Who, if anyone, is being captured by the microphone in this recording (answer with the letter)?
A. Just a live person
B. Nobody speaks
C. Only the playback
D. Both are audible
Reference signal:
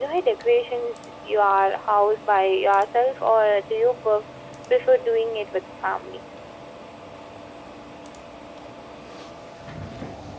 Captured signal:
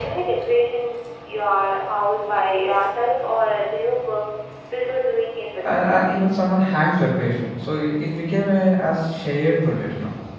D